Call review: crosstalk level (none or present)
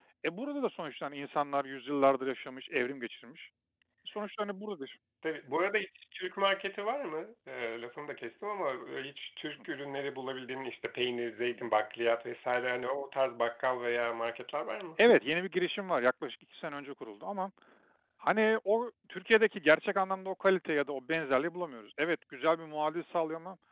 none